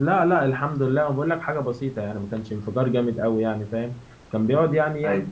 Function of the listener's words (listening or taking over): listening